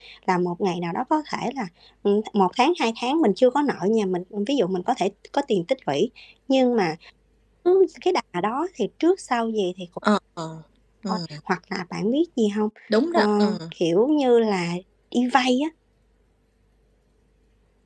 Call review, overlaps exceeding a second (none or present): none